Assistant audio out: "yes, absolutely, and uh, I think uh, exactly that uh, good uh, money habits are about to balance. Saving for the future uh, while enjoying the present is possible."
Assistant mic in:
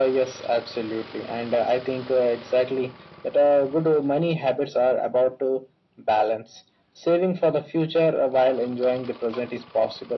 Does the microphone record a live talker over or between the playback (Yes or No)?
No